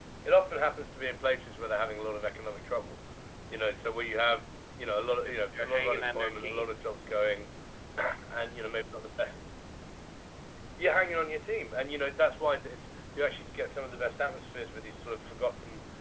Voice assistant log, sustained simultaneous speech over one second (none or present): present